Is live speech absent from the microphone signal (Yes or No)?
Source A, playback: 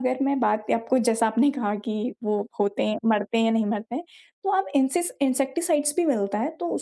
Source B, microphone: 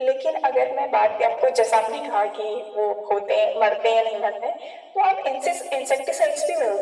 Yes